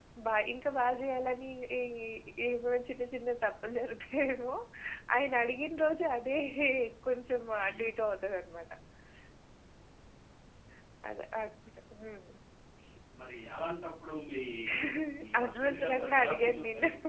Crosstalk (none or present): present